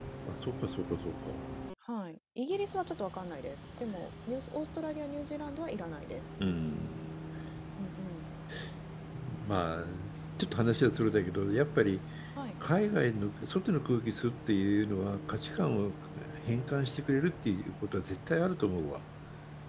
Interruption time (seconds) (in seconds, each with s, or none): none